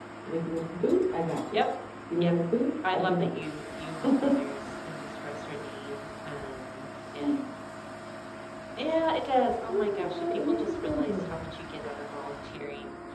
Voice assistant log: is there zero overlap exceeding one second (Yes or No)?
No